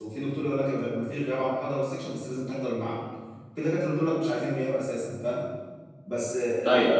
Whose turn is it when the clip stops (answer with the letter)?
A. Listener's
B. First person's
B